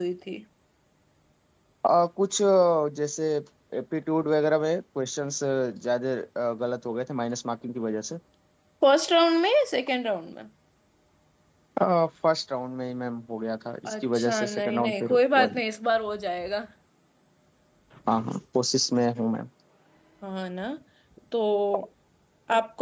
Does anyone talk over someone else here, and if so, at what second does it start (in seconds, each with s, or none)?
13.8 s